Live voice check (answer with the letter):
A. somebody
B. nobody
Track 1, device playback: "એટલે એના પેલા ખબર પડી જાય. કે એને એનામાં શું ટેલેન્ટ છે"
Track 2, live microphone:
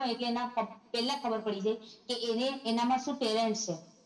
B